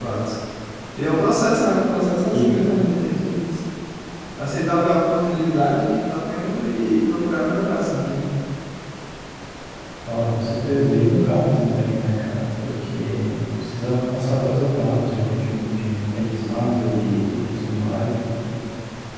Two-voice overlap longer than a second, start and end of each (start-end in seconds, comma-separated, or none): none